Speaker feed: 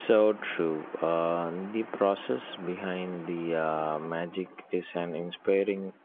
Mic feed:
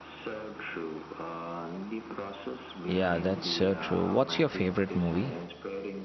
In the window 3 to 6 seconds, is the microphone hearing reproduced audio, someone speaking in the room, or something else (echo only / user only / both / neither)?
both